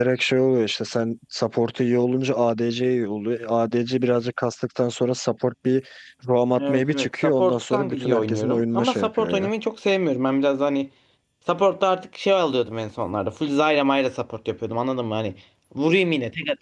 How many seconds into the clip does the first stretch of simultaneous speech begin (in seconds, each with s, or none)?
6.7 s